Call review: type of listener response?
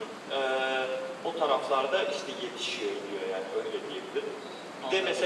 listening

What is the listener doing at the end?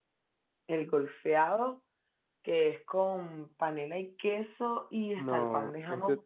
taking over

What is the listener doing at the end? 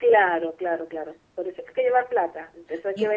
taking over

